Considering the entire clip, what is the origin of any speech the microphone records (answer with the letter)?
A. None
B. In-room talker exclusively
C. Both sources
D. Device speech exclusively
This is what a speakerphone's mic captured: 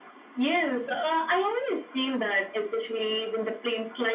D